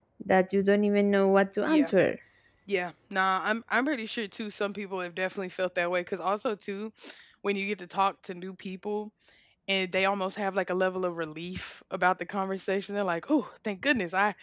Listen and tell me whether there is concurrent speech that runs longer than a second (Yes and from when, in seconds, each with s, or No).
No